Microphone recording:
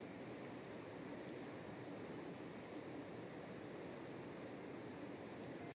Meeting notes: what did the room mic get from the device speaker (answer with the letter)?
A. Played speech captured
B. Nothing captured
B